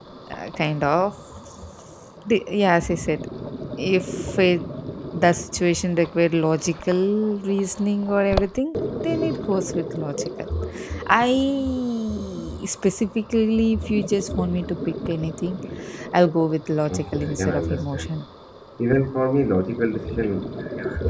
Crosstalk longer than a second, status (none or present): present